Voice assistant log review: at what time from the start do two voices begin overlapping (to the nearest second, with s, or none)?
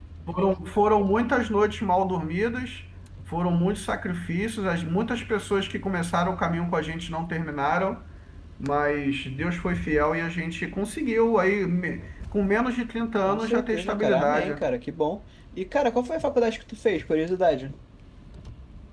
13 s